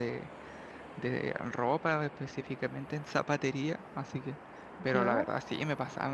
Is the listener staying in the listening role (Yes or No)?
Yes